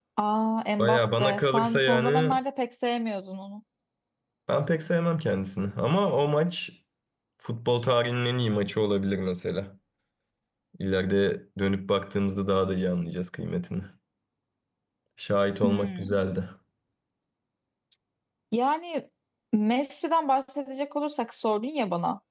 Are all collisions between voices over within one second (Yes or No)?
No